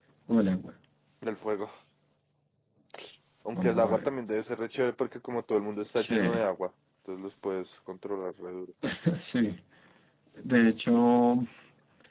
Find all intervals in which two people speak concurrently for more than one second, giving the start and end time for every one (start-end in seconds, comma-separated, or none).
none